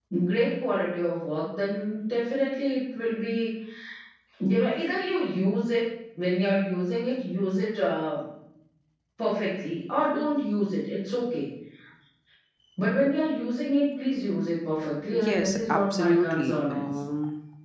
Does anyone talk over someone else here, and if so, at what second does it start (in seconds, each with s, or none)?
15.1 s